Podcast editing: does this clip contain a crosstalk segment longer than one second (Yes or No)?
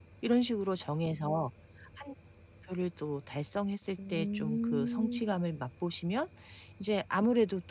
Yes